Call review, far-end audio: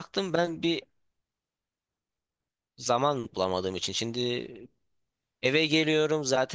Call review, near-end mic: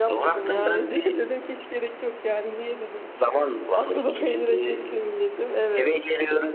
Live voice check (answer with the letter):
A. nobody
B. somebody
B